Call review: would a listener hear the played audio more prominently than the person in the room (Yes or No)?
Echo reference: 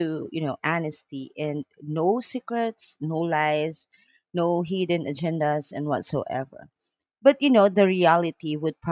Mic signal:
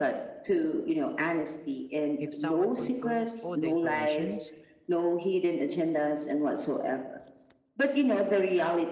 Yes